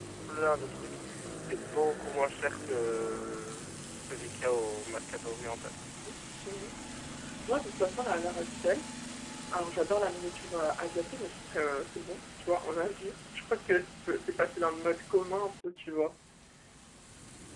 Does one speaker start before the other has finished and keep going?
No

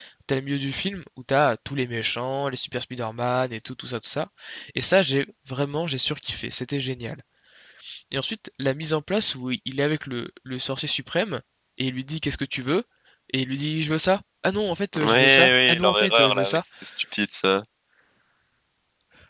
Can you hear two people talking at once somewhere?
Yes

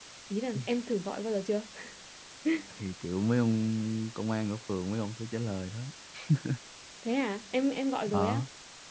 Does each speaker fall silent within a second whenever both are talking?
Yes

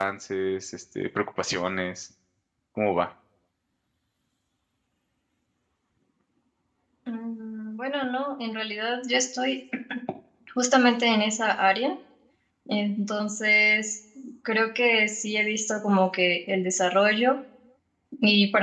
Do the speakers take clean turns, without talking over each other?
Yes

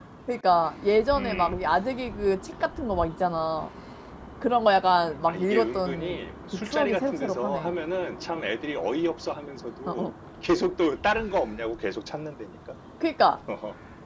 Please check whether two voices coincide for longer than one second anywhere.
Yes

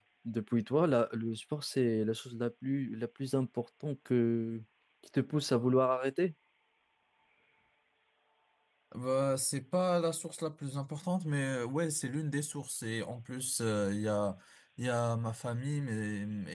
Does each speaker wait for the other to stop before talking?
Yes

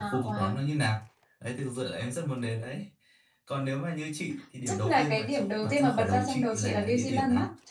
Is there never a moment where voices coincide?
No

